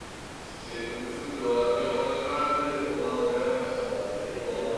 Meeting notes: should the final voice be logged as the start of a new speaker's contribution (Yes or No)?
Yes